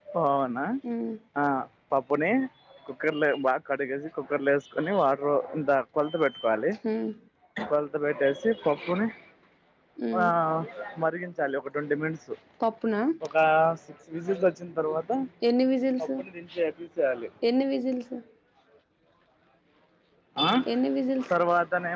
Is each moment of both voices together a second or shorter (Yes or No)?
Yes